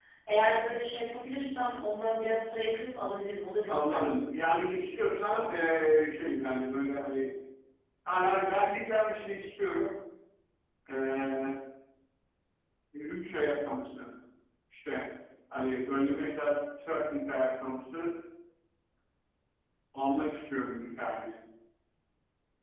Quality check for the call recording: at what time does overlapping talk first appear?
3.7 s

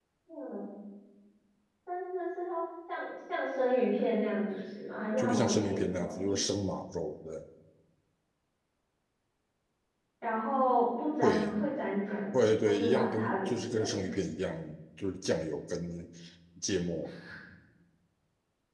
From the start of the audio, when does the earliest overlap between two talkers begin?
5.2 s

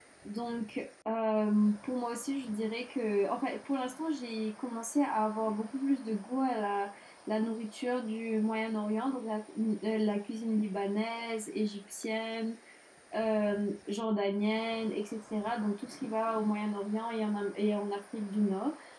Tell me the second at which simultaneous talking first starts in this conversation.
none

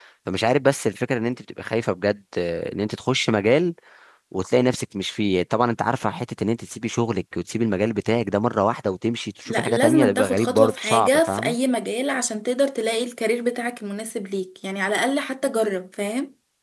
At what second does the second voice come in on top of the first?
9.5 s

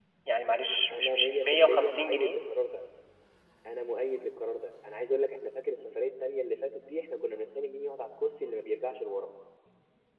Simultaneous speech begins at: 0.9 s

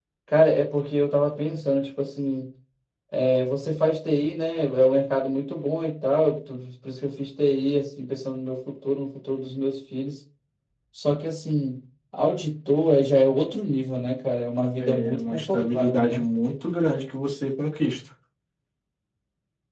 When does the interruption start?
14.7 s

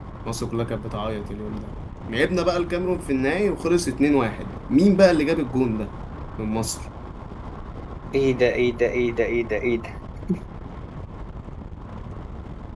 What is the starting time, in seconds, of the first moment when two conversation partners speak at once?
none

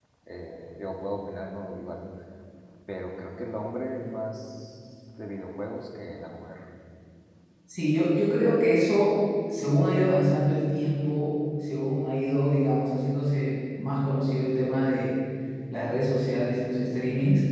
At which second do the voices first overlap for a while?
none

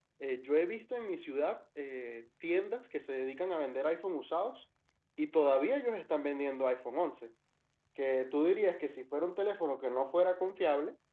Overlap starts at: none

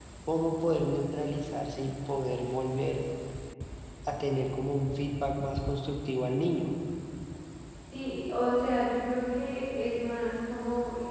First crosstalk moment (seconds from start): none

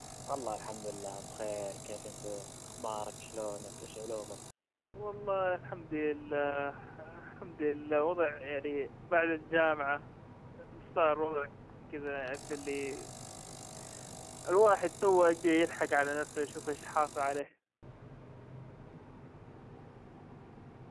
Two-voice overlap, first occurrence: none

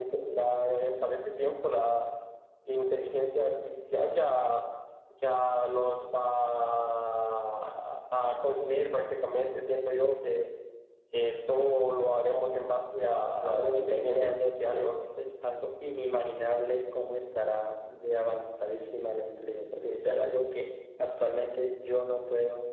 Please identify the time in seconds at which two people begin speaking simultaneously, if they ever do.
13.4 s

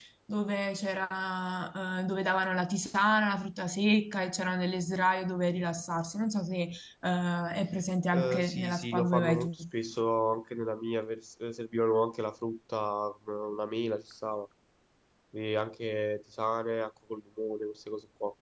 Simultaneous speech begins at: 8.1 s

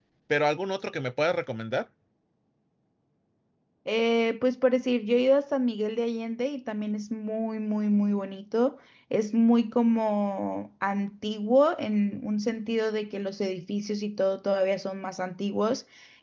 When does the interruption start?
none

